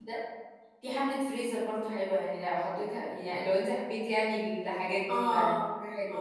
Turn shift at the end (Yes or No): Yes